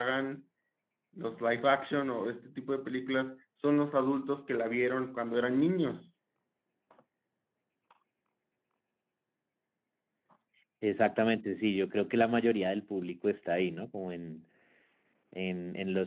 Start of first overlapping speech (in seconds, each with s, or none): none